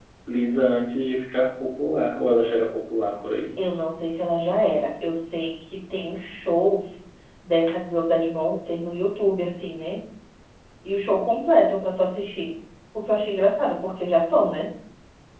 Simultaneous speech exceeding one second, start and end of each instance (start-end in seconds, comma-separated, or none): none